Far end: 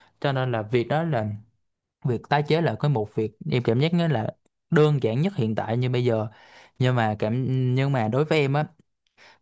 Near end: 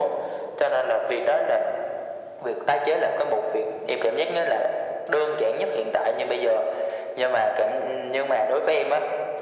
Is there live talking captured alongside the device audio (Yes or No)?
No